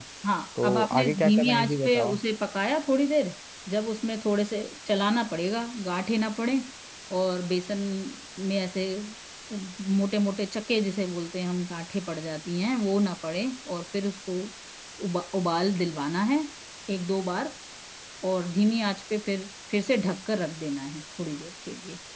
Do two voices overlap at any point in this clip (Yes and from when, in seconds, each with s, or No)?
Yes, from 0.6 s